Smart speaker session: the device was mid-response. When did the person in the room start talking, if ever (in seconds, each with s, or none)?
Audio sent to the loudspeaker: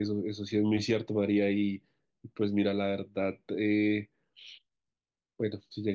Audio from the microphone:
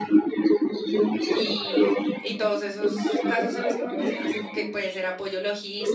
1.3 s